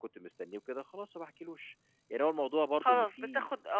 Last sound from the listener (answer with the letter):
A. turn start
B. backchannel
A